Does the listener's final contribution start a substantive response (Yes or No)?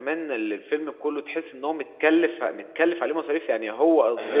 Yes